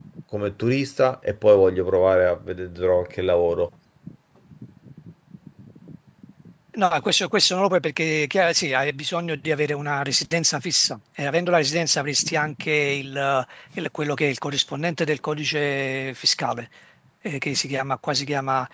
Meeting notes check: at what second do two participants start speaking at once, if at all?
none

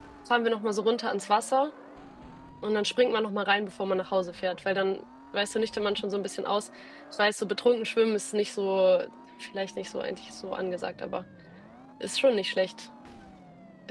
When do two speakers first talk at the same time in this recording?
none

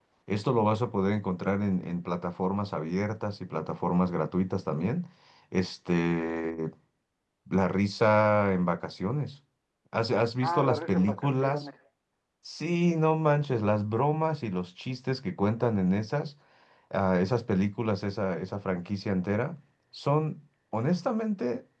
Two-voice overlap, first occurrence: 10.4 s

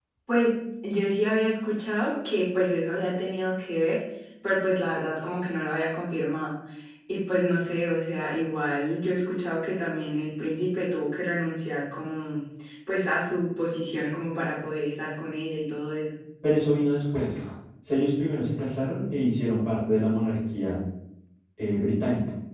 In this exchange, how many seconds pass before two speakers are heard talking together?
none

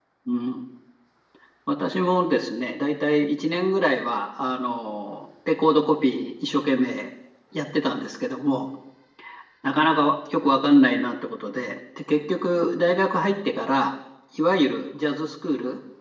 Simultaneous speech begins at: none

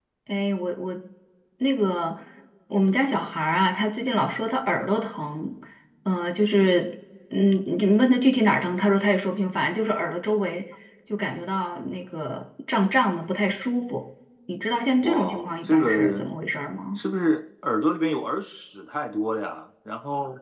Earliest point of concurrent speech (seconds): 15.0 s

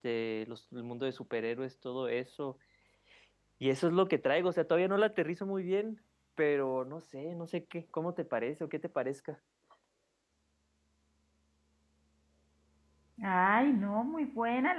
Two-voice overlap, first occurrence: none

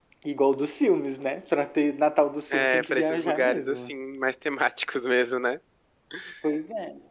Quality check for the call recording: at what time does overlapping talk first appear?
2.5 s

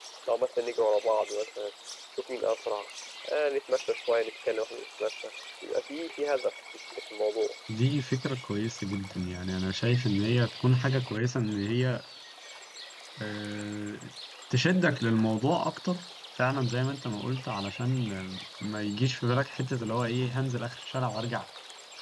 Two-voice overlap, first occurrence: none

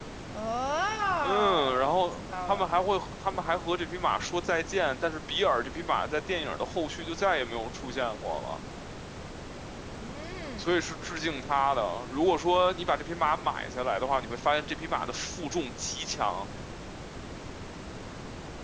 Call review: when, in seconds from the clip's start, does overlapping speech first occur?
1.2 s

